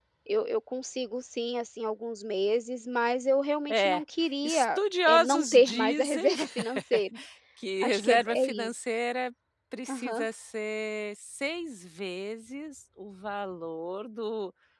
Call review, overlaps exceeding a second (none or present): present